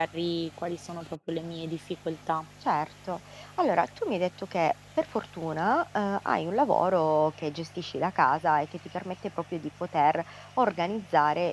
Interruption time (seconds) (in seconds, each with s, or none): none